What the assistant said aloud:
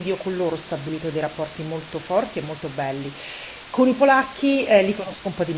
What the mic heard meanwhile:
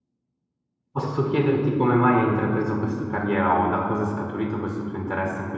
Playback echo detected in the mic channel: No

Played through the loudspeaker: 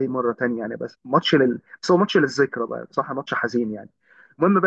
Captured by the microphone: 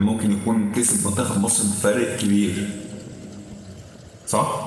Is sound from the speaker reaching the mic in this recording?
No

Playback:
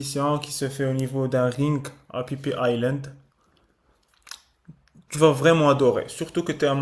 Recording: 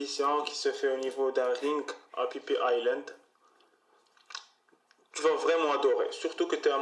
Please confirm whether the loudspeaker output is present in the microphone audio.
Yes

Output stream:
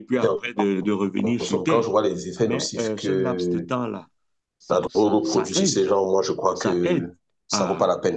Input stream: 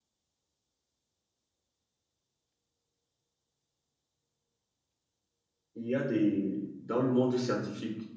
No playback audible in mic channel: Yes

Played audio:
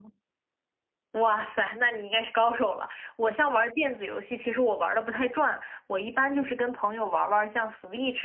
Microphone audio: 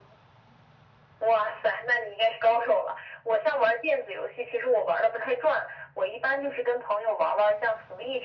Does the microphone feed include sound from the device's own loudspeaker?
Yes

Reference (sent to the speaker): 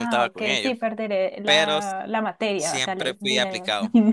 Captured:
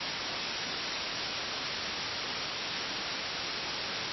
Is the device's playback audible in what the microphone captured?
No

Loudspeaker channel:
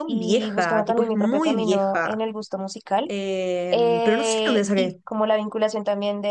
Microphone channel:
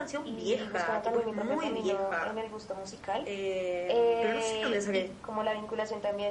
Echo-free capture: No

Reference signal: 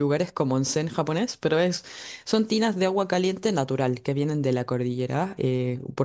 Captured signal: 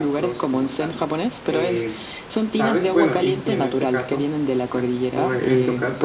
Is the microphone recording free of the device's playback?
No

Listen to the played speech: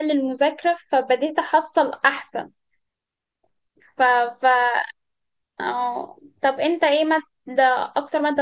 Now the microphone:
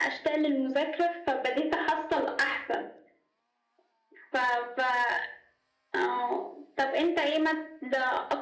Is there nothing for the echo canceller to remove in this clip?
No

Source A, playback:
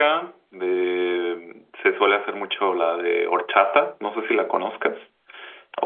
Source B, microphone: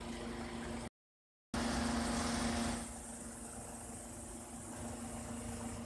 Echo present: No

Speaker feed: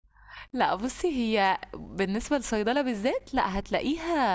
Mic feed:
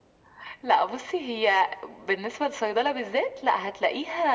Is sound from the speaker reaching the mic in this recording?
Yes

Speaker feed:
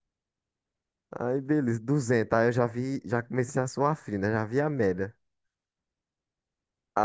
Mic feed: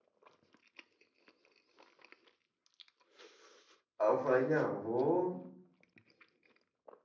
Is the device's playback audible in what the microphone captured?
No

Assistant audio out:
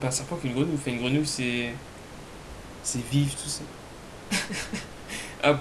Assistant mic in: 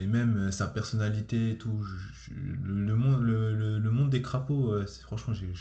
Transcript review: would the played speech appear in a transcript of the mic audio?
No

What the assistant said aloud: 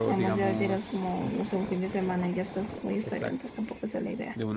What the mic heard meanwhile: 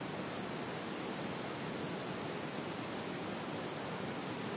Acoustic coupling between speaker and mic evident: No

